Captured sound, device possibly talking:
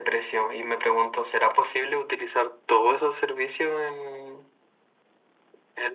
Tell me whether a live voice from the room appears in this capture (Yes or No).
No